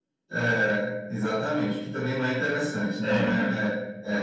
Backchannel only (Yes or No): Yes